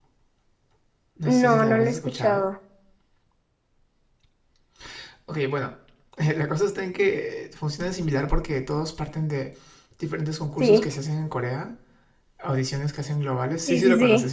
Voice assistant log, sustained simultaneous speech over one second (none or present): present